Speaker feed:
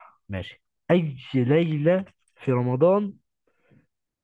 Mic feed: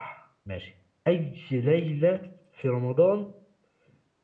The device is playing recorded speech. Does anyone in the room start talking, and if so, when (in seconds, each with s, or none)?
none